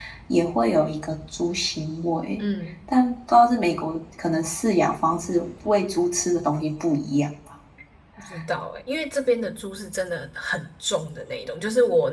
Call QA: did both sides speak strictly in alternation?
Yes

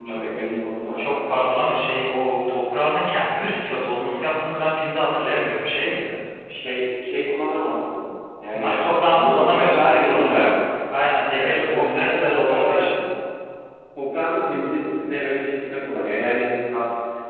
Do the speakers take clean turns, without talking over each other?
No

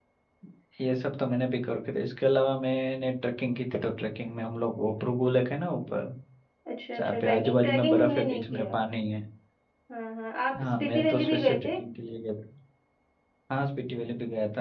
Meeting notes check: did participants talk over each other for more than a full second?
Yes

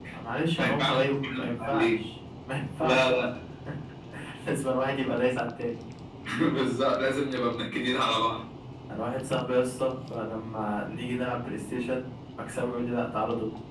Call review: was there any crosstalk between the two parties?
Yes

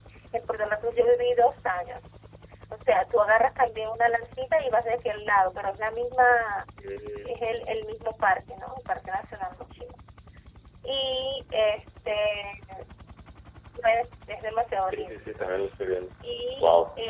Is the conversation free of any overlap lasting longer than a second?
Yes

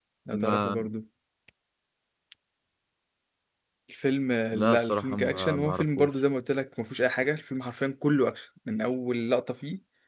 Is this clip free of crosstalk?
No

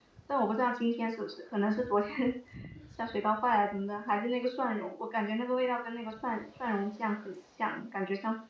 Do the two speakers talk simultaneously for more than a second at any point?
No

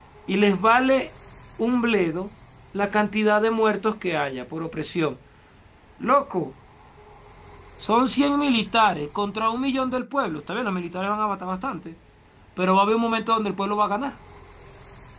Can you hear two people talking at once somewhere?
No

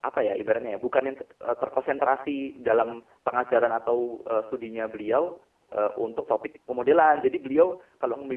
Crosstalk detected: No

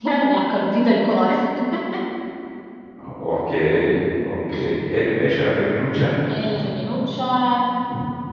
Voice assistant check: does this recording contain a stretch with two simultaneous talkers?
No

